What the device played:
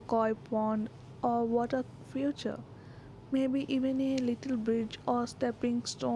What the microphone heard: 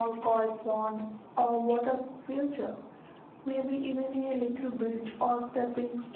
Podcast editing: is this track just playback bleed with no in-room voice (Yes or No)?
Yes